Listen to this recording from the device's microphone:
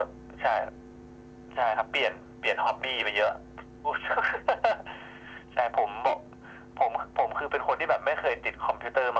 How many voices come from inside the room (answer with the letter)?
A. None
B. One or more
A